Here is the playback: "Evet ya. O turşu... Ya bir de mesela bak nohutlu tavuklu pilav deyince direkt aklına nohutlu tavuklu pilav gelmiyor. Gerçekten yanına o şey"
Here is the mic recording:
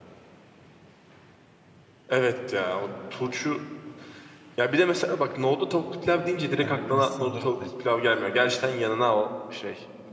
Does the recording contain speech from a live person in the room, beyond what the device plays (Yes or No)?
Yes